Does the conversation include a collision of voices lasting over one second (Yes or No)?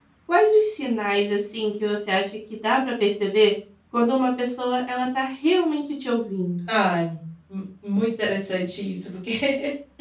No